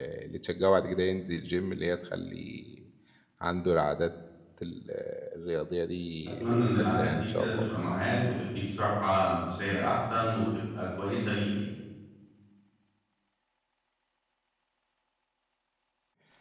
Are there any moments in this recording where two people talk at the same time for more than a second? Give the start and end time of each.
6.4-7.7

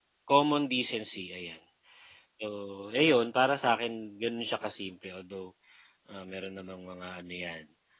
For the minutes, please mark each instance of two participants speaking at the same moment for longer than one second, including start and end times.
none

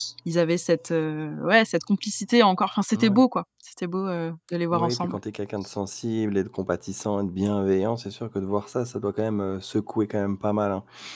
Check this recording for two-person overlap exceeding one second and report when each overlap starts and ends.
none

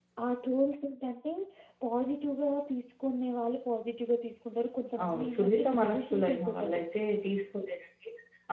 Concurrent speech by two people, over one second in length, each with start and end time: 5.0-6.8

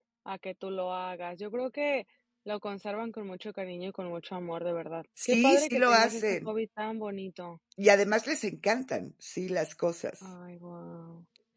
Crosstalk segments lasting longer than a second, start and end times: 5.2-6.5

